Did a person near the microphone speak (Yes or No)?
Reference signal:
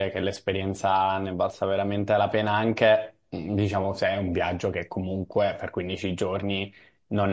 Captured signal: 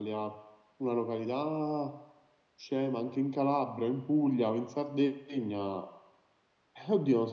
Yes